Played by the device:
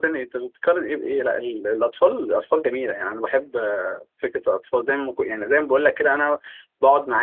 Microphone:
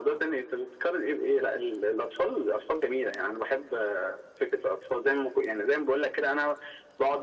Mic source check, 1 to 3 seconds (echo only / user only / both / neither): echo only